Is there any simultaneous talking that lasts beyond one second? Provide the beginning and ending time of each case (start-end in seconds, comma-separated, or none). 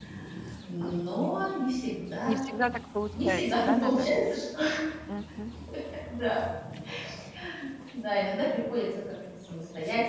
3.1-4.3